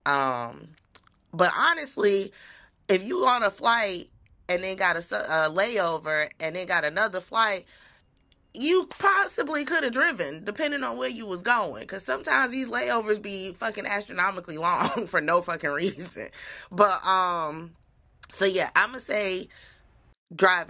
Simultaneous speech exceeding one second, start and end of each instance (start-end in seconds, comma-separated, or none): none